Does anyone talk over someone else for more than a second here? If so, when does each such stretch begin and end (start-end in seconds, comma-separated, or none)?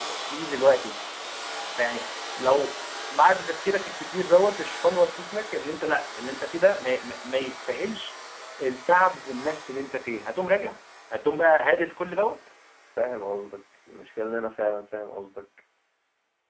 none